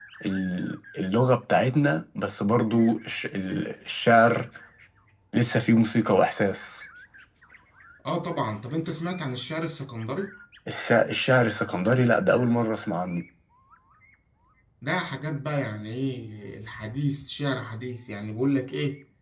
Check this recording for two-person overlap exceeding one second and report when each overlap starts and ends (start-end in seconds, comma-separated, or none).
none